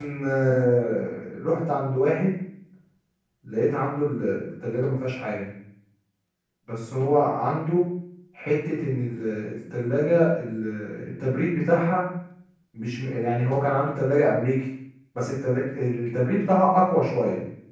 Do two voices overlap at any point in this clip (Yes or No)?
No